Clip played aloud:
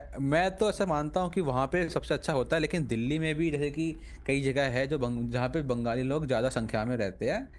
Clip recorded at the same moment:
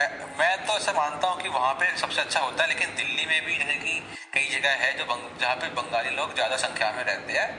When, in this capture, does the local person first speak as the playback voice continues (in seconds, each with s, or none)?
none